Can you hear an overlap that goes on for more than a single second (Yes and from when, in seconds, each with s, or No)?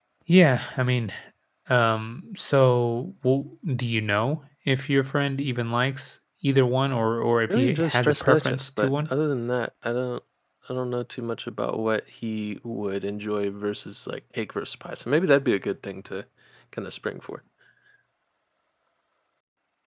Yes, from 7.5 s